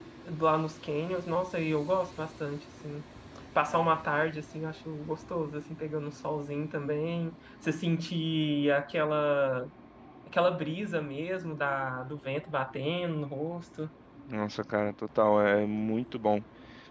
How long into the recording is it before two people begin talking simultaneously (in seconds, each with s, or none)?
none